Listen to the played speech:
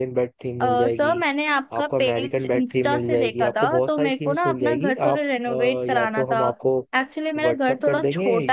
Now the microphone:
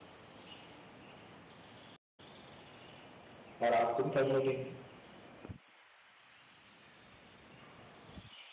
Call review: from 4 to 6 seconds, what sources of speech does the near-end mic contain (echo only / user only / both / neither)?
user only